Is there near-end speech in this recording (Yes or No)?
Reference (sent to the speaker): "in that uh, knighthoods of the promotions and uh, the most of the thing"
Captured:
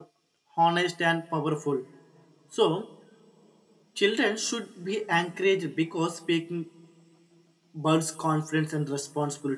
Yes